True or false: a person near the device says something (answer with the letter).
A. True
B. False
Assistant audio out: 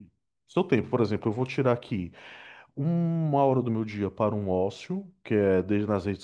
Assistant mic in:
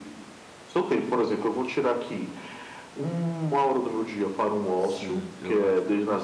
A